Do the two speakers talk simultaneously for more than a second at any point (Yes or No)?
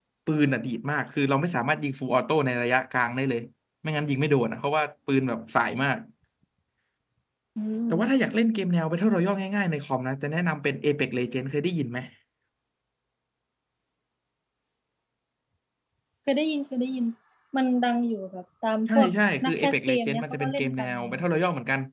Yes